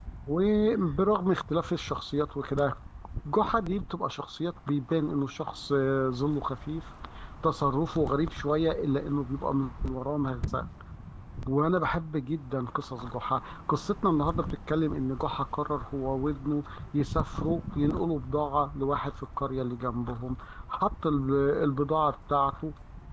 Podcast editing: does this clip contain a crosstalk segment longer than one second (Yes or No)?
No